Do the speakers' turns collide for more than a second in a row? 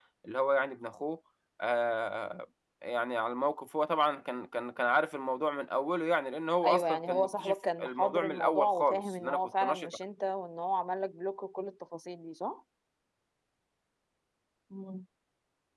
Yes, from 6.6 s

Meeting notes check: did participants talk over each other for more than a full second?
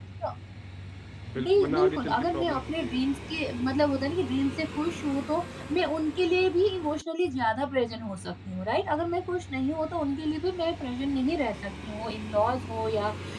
Yes, from 1.4 s

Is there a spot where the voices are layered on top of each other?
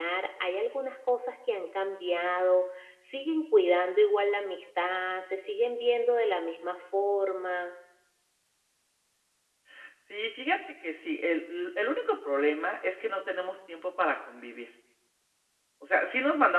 No

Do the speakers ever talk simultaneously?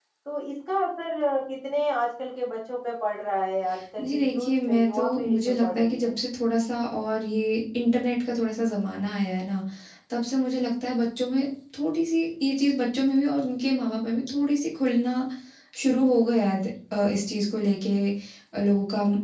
Yes, from 4.0 s

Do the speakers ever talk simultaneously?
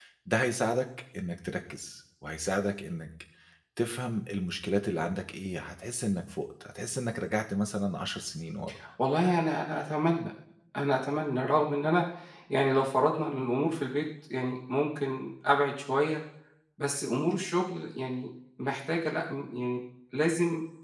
No

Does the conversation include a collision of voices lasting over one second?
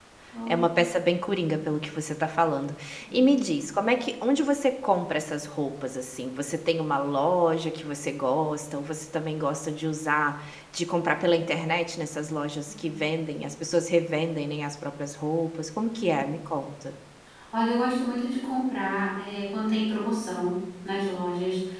No

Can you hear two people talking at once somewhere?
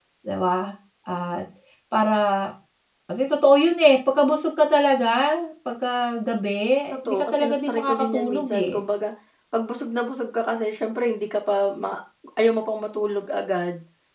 Yes, from 6.9 s

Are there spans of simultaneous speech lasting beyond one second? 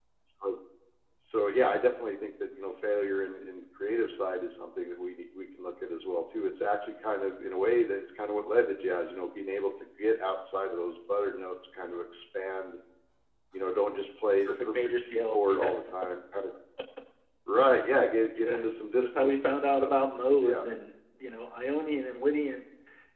Yes, from 14.4 s

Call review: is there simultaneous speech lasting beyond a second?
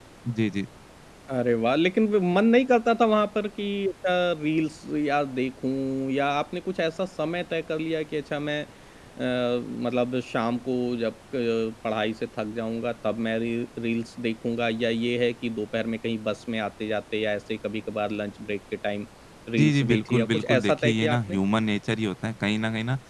Yes, from 19.6 s

